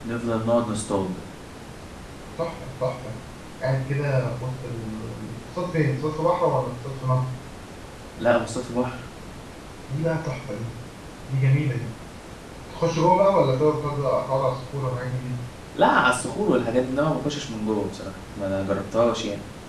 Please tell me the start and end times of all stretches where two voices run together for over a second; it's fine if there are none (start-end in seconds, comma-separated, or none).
none